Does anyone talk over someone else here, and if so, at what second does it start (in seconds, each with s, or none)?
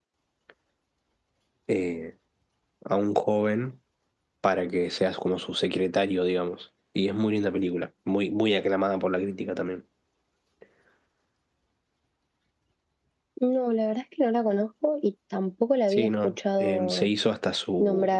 15.9 s